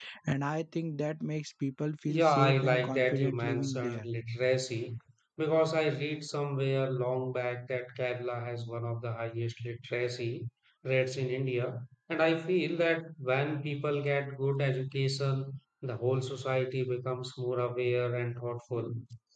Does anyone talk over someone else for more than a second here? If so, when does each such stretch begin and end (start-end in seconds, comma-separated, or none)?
2.1-4.1